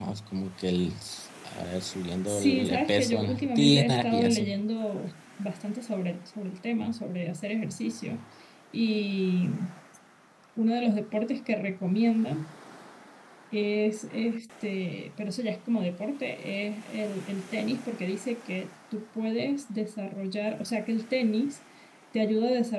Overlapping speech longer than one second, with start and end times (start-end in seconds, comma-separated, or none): 2.3-4.4